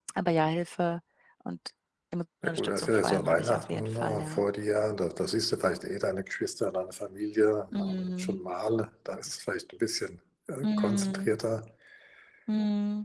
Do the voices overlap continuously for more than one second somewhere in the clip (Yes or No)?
Yes